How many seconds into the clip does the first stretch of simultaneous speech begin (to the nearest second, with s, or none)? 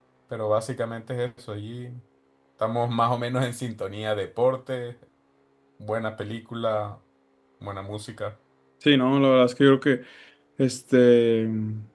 none